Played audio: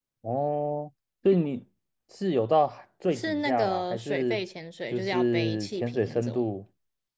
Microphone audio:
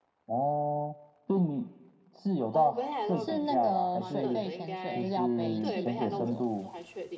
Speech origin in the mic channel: both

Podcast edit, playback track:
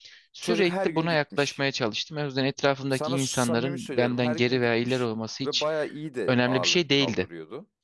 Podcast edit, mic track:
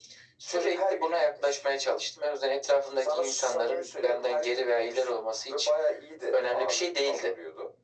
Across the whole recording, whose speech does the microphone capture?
echo only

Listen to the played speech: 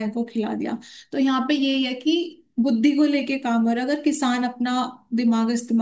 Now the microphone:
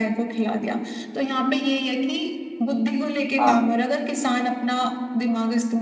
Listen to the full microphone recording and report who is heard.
both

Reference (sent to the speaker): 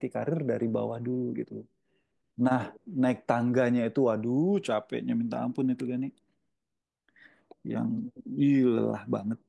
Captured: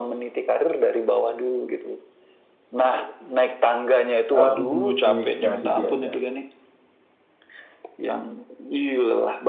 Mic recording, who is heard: both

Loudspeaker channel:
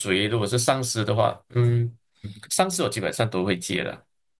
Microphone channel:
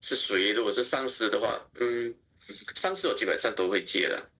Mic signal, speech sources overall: echo only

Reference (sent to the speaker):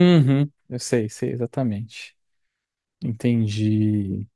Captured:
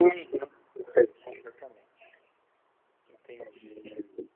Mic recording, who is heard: echo only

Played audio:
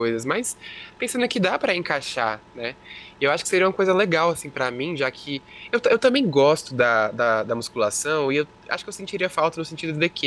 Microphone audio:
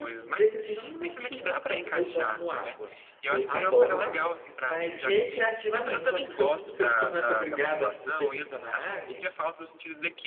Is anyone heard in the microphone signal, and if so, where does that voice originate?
both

